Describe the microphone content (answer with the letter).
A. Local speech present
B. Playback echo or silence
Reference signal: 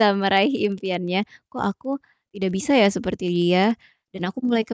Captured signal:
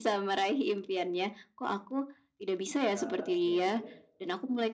A